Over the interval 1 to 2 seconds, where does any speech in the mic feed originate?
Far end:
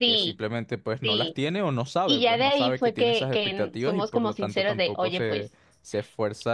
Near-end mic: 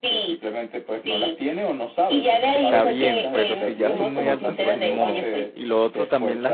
echo only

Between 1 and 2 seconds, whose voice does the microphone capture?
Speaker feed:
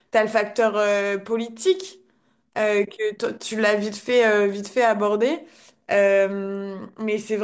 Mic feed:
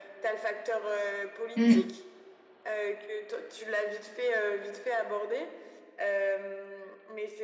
both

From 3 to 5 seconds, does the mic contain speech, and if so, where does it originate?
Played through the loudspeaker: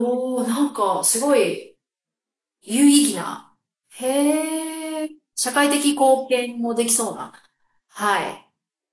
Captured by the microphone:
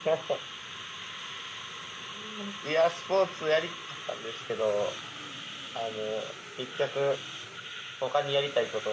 user only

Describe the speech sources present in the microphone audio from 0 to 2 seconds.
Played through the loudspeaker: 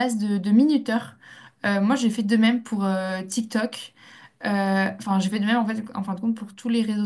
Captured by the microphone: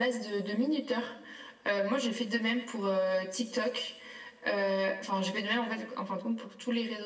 echo only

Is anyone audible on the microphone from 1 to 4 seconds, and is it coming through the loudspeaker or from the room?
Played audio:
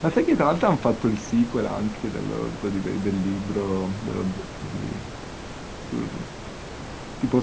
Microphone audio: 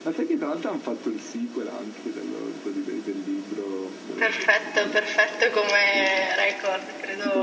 echo only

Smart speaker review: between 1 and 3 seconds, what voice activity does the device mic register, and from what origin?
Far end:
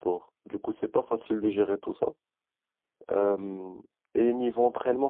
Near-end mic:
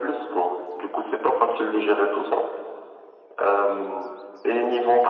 echo only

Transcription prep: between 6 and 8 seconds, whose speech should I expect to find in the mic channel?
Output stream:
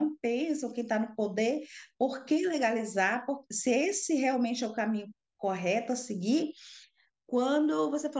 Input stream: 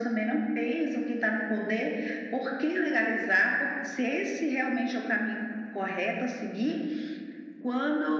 echo only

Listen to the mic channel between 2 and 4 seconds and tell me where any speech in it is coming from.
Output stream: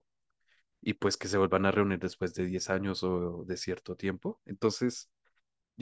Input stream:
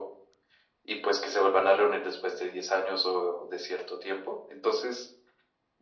echo only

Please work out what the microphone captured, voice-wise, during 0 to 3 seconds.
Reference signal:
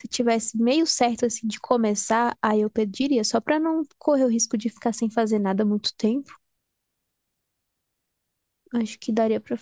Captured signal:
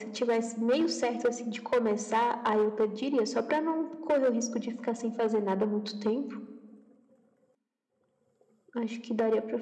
echo only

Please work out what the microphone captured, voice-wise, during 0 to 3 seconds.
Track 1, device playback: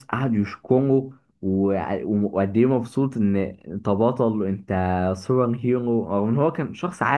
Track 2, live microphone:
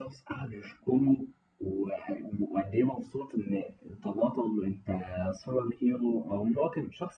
echo only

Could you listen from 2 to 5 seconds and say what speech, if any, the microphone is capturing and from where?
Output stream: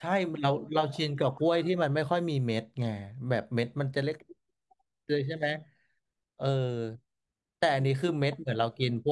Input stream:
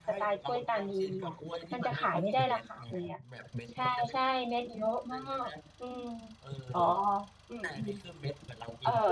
both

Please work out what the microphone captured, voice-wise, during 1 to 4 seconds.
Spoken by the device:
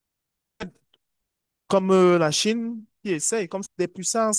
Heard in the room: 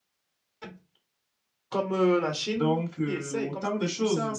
both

